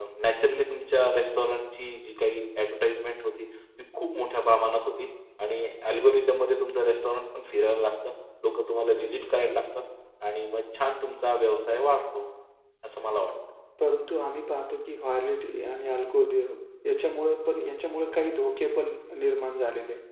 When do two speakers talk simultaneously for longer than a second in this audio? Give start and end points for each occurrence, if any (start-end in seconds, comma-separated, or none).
none